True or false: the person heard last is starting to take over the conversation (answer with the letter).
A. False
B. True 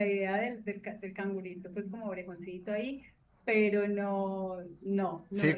B